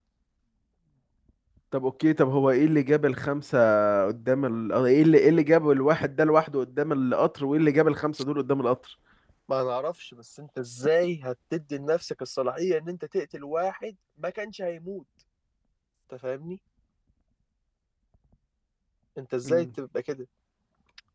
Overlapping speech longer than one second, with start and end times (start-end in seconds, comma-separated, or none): none